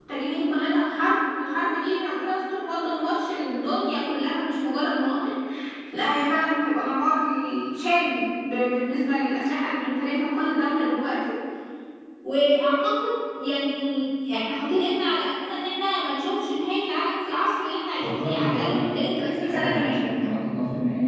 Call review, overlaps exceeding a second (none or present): present